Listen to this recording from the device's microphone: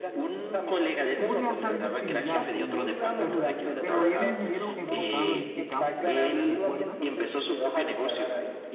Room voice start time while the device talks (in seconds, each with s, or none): 1.1 s